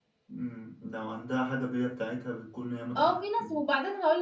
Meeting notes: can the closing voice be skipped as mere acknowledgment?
No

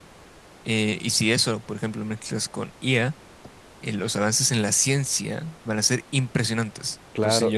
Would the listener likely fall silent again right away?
No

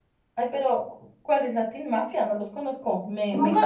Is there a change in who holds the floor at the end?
Yes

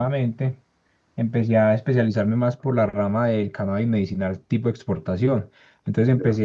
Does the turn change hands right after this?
No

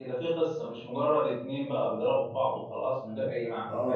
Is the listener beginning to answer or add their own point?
Yes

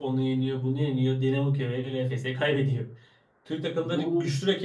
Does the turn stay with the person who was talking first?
Yes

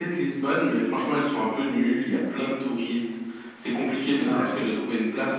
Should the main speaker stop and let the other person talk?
No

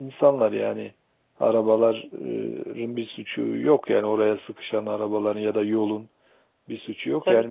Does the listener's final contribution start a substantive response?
No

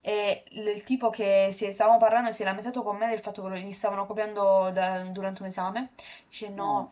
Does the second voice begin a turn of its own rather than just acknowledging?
No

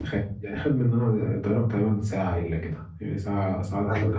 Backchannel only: No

